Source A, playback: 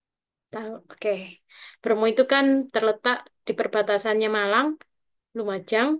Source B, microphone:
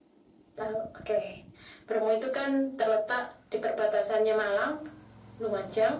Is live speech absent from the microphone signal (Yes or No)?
Yes